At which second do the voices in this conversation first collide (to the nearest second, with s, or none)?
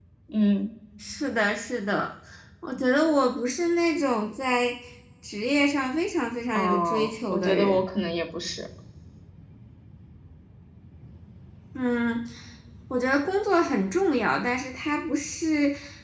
7 s